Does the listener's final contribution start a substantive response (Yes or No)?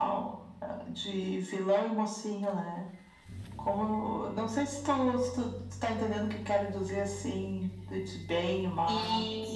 Yes